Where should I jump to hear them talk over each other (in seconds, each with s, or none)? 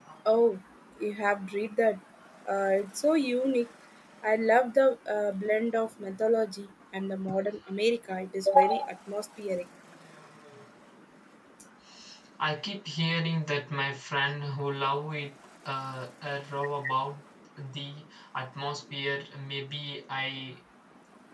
none